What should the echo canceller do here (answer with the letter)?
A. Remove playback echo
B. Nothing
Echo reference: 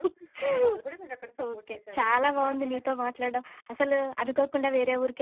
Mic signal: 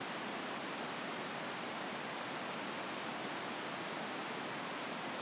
B